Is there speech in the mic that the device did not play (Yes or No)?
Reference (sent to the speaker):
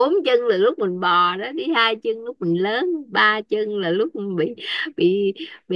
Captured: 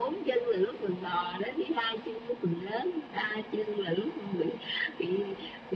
No